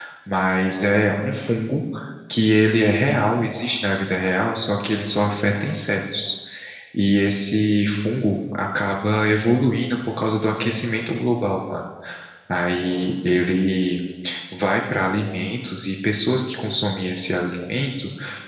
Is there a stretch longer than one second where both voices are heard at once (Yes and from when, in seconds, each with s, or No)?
No